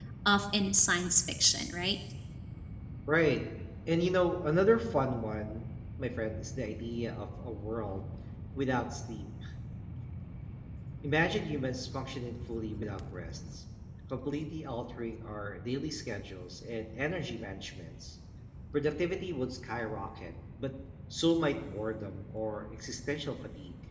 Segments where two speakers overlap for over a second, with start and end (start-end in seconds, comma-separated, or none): none